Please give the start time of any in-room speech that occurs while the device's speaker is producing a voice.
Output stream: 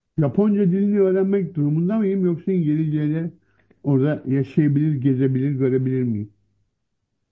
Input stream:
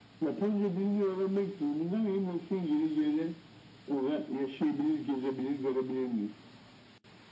none

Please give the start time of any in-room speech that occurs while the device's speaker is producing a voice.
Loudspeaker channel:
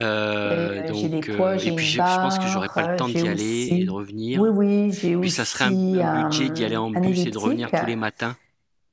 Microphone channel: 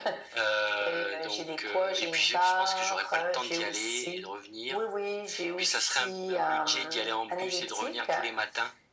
none

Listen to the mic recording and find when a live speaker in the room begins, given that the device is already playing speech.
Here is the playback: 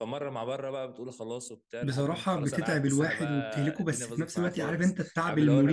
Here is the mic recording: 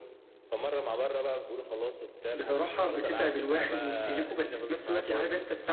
none

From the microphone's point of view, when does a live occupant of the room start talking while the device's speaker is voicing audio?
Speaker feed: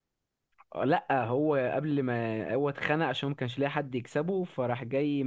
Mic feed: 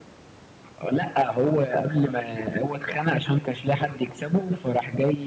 none

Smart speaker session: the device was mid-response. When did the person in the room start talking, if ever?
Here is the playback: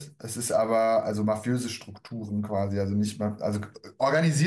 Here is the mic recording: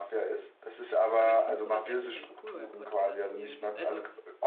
1 s

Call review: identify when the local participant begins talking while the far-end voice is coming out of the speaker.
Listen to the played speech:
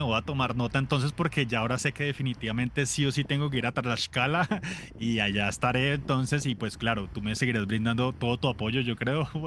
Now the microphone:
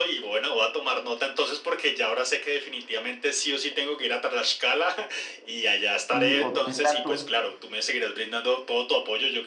6 s

